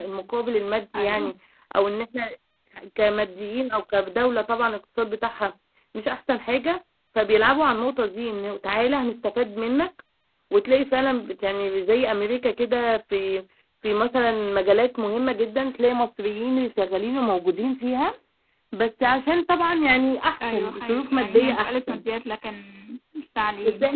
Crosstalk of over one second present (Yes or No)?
Yes